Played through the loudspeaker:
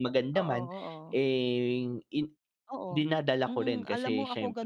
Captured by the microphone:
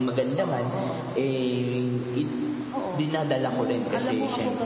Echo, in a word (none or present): present